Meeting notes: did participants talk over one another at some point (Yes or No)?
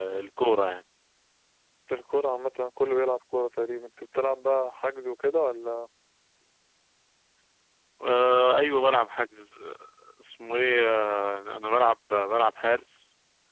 No